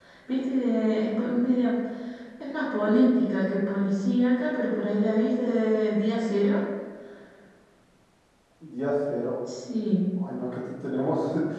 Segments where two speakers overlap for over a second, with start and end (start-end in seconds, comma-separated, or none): none